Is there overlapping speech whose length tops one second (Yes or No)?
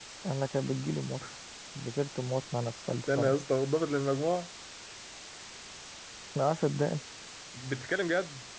No